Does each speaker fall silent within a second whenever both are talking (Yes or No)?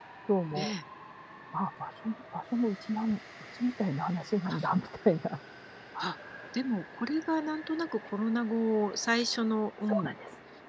Yes